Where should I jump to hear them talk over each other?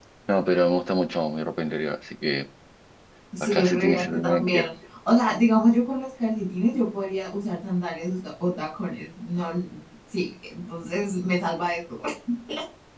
3 s

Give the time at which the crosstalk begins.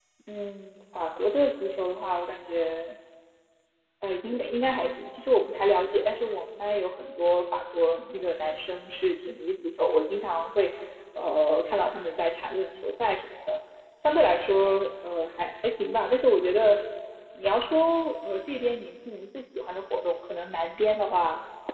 none

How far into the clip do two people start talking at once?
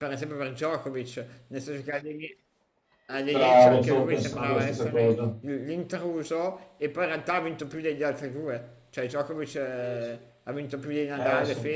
3 s

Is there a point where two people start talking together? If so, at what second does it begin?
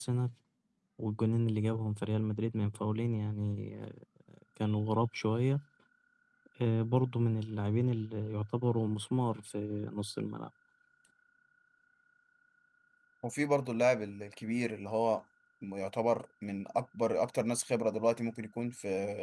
none

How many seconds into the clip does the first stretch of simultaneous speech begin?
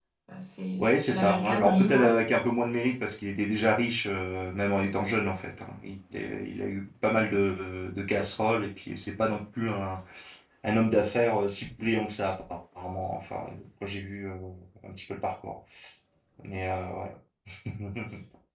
1 s

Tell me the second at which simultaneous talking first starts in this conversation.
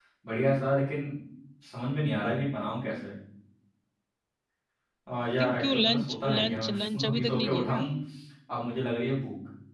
5 s

